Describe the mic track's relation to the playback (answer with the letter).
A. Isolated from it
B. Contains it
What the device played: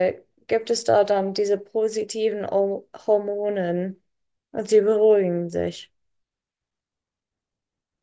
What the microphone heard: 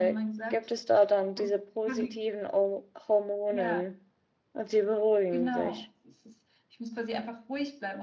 B